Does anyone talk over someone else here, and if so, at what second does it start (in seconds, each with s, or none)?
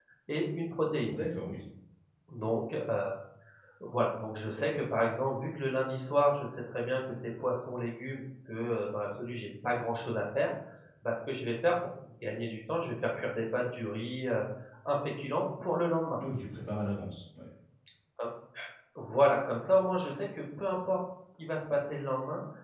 none